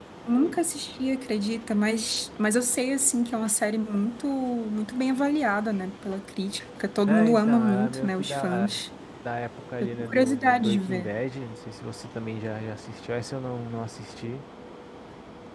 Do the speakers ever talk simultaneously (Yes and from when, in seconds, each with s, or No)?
Yes, from 7.1 s